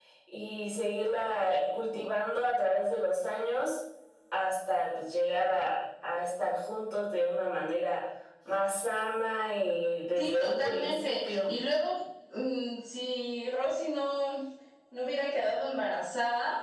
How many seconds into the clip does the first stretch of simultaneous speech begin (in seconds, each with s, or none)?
10.2 s